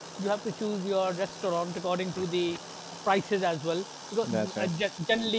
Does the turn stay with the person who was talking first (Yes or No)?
Yes